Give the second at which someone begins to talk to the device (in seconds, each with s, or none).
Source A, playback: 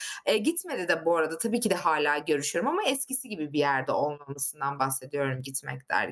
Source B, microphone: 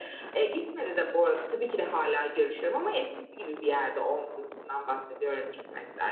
none